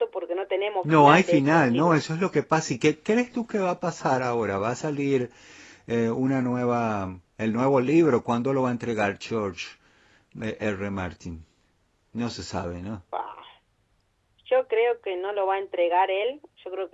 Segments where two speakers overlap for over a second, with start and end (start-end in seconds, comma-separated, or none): 0.8-2.0